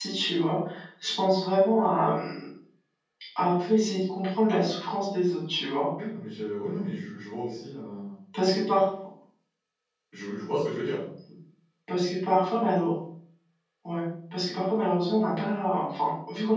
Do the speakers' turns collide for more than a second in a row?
No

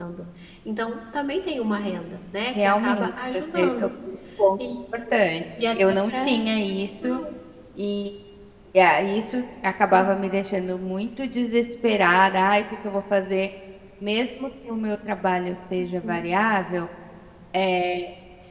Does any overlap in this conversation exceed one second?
Yes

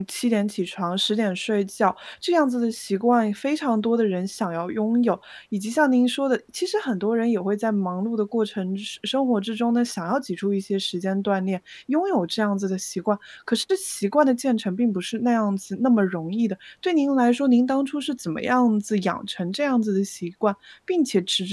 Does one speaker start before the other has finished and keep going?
No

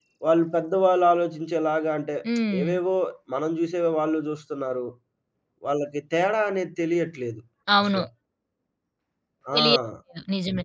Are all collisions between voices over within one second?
Yes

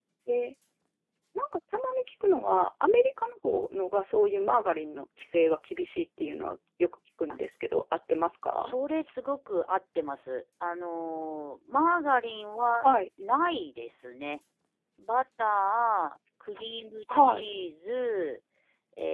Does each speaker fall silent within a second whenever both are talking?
Yes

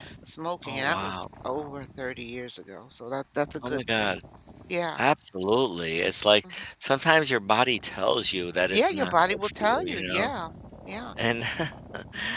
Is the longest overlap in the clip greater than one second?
Yes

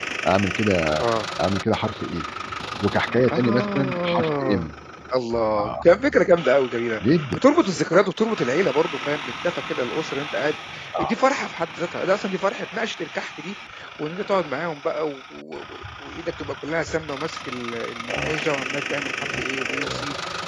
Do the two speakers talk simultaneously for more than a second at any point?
Yes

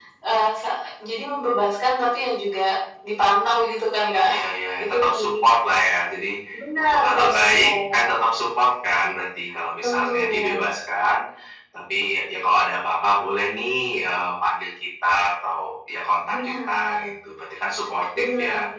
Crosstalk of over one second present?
Yes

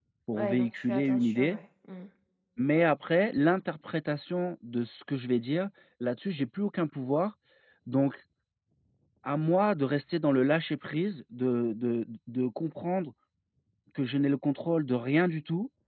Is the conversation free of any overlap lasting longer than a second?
No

